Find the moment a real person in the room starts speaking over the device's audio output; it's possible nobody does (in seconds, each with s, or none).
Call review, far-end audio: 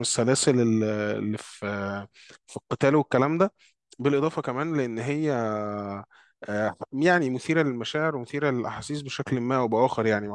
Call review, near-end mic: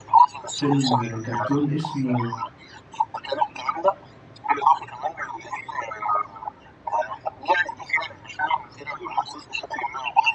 0.5 s